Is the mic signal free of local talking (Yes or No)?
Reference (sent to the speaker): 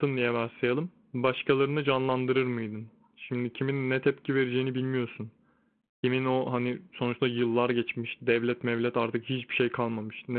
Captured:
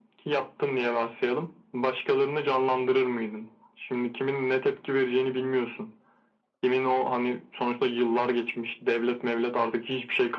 Yes